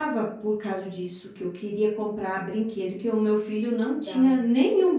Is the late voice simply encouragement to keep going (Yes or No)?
Yes